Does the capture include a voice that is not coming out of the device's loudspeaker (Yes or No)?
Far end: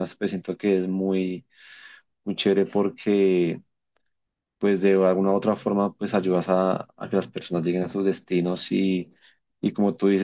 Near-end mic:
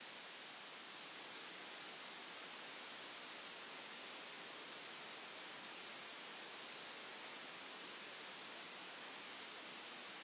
No